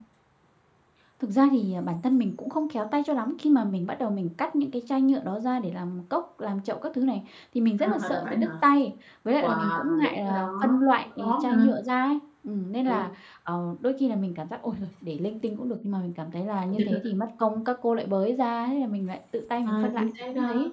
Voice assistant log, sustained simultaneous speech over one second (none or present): present